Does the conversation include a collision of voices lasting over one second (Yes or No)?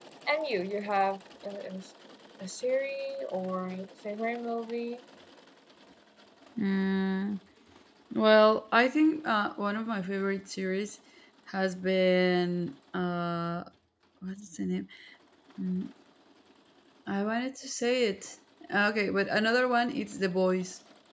No